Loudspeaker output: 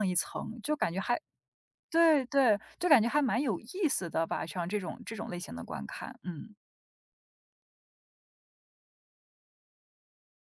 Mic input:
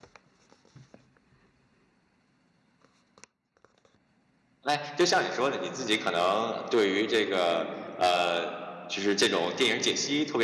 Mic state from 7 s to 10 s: user only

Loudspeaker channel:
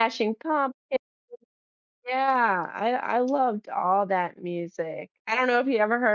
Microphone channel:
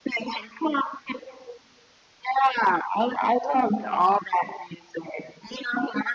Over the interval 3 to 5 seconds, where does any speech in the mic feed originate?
echo only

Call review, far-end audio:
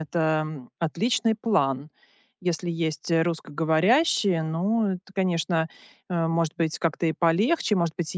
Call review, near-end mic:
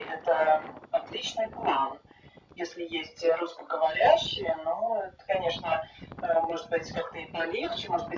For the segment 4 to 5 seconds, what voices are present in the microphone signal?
echo only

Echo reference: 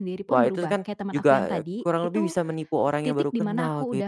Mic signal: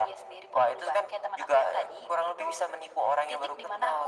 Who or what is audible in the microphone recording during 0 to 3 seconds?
echo only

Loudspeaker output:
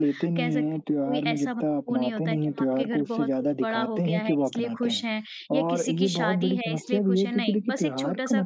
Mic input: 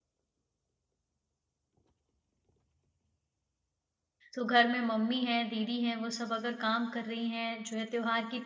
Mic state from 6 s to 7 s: user only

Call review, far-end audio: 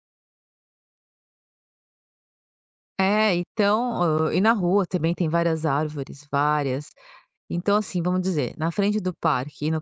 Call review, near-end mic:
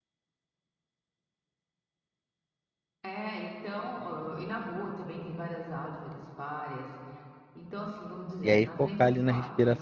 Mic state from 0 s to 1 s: neither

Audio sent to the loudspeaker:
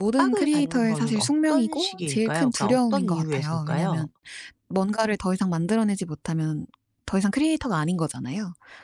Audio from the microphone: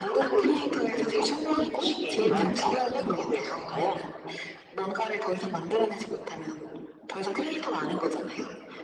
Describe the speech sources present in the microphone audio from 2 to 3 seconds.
both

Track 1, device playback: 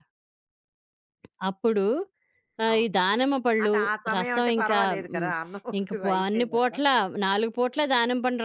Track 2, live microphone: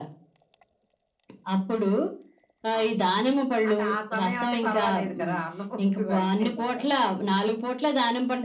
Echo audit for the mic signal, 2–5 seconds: echo only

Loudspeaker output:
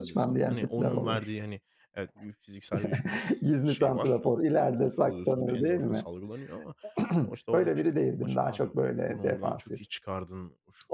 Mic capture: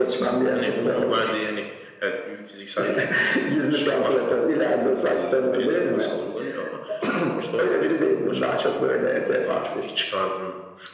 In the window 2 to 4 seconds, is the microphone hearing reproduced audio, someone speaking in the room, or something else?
echo only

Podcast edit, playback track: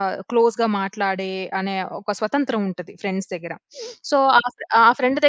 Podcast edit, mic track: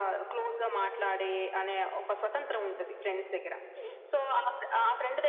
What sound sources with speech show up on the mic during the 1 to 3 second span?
echo only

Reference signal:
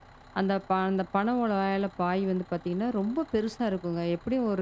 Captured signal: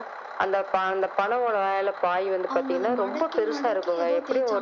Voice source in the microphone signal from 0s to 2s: echo only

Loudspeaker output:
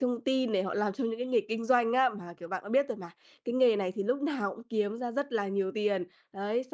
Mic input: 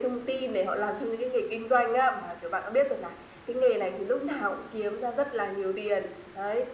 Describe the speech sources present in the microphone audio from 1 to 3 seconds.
echo only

